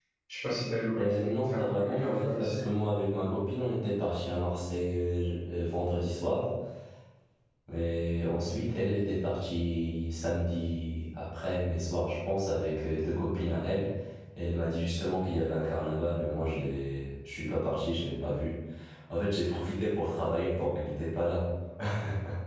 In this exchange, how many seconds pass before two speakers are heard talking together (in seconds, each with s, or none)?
1.0 s